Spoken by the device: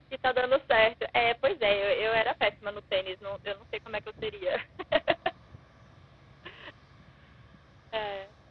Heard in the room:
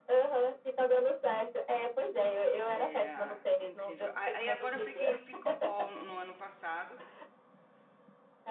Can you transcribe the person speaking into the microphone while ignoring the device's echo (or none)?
Eh, incrível. A a aí, agora, eu peguei o pickleball no no ano passado,